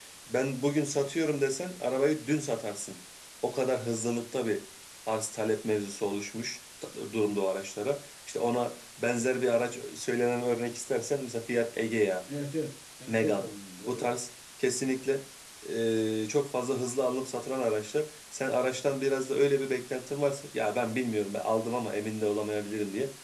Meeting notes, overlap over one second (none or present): none